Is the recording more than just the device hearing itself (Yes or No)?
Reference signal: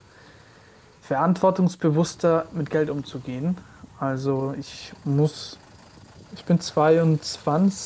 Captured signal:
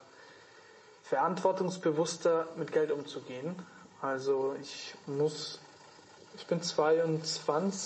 No